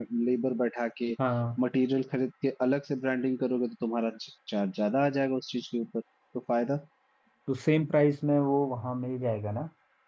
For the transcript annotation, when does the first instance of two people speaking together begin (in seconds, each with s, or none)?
none